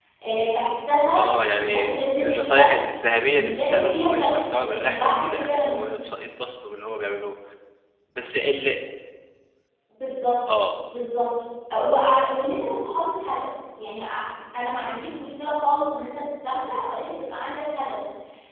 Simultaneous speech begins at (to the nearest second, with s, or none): 1 s